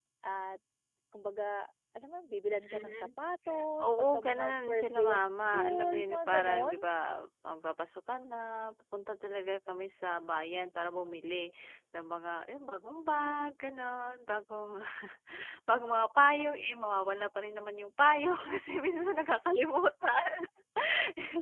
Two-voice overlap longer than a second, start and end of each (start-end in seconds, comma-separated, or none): 3.8-6.9